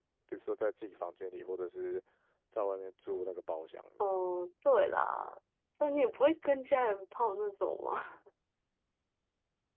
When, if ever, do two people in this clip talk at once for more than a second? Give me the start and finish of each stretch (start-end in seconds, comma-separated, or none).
none